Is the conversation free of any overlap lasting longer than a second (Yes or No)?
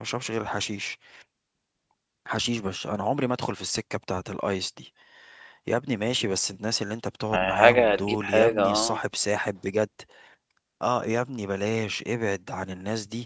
No